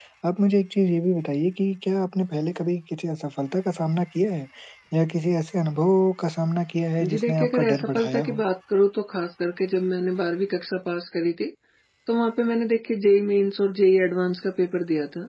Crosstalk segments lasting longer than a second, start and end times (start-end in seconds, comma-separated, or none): 7.1-8.4